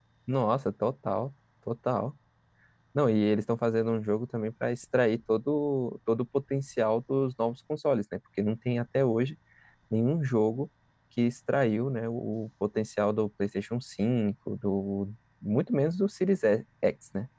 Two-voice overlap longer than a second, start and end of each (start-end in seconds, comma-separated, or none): none